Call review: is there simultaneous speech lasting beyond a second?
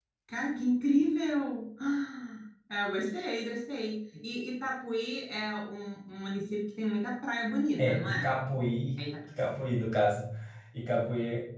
No

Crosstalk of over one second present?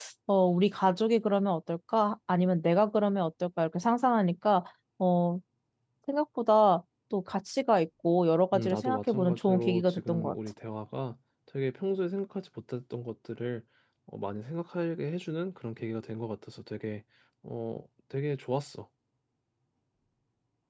Yes, from 8.5 s

